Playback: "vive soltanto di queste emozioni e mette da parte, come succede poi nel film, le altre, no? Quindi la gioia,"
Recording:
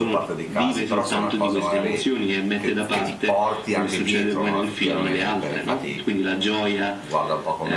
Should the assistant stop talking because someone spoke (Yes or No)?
Yes